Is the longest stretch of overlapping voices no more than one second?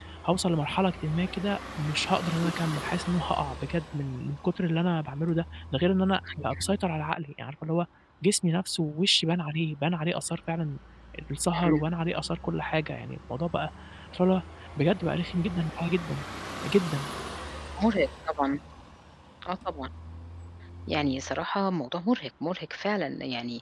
Yes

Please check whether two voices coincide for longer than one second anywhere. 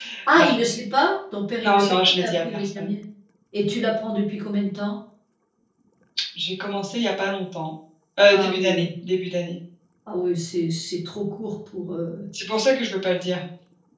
Yes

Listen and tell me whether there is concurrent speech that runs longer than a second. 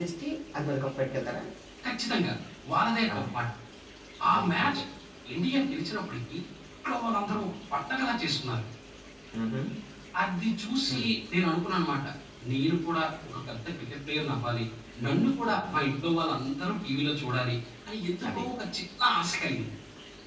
No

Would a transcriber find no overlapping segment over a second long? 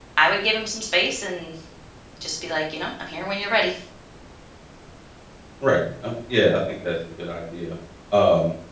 Yes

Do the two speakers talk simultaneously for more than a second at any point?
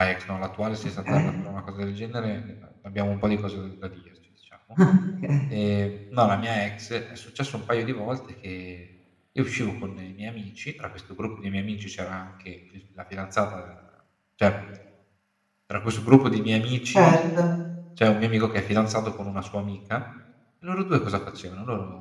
No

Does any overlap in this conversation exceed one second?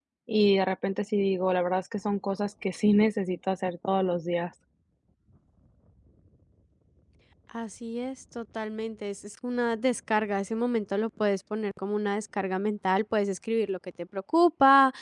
No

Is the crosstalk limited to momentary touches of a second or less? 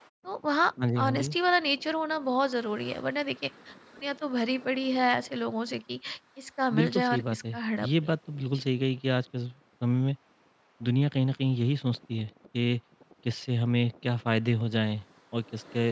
No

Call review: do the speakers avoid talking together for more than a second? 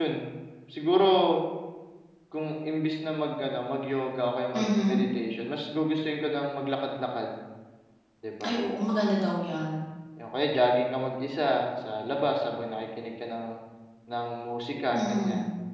Yes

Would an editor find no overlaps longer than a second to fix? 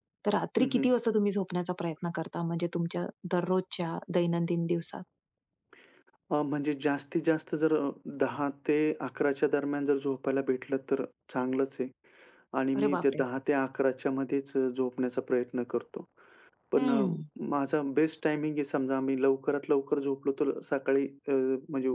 Yes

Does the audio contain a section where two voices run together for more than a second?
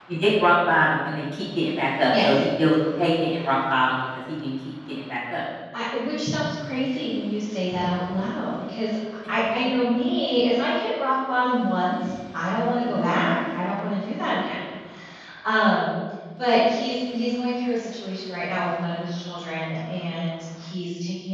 No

